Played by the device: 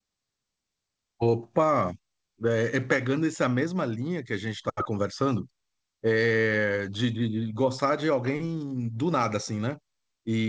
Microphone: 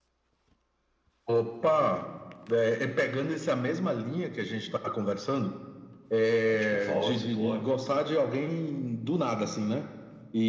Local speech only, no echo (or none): É, Tipo, Fall Out Boy.